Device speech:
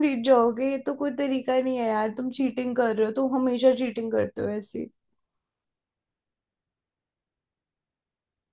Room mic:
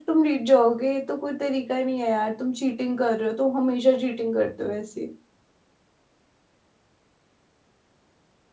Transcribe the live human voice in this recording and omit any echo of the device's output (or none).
none